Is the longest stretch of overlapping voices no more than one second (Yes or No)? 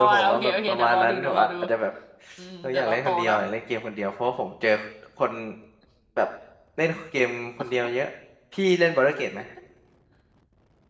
No